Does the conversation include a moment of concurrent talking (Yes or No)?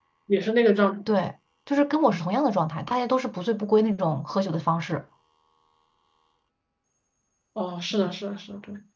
No